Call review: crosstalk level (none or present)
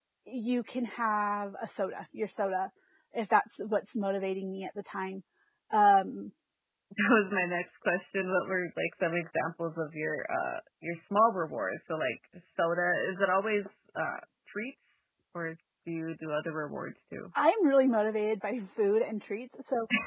none